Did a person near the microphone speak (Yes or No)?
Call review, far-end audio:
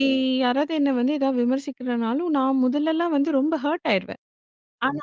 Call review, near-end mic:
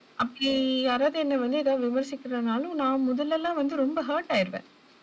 No